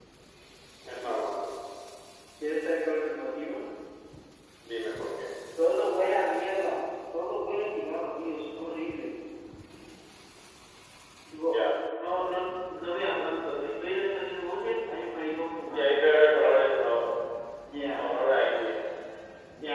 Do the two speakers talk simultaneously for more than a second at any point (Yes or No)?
No